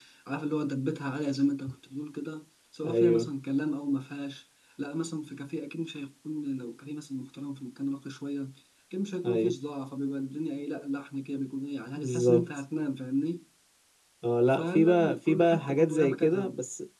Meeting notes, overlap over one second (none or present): present